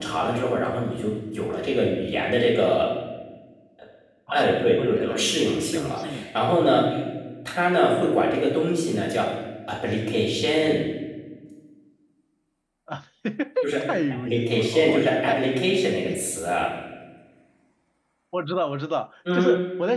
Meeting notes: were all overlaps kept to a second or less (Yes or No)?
No